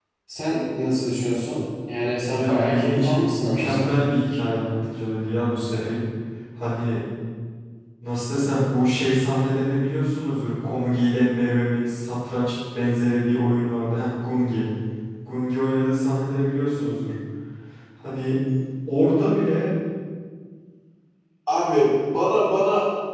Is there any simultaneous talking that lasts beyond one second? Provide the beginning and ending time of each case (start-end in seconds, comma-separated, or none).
2.3-3.9